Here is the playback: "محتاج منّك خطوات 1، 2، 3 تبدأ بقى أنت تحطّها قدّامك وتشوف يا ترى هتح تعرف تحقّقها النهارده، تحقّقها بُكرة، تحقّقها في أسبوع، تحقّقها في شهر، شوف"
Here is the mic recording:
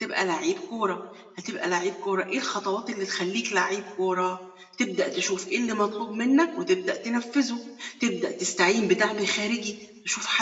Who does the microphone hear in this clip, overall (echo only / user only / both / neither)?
user only